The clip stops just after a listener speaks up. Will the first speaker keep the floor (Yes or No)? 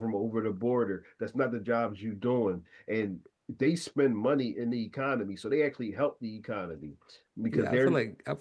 No